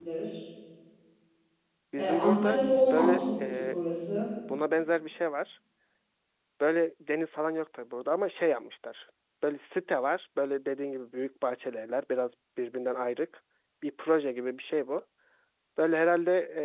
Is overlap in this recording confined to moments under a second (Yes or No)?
No